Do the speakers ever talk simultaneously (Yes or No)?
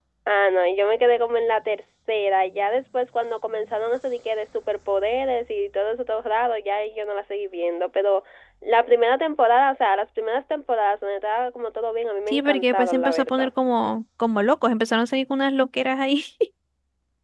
Yes